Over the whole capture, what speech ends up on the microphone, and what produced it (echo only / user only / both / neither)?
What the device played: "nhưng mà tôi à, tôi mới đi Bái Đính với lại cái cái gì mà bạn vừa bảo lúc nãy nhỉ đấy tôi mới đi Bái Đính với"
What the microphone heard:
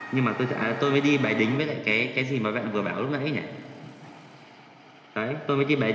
echo only